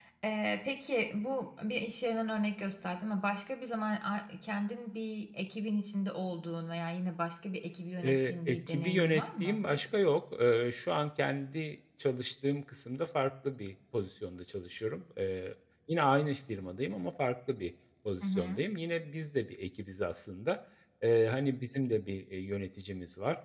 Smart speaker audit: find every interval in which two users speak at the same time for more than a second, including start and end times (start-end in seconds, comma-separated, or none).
8.0-9.6